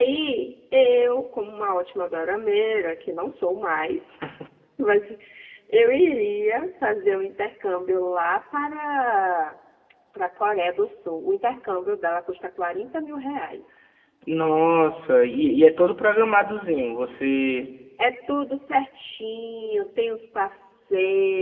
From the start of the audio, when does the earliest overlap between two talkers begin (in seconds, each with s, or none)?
none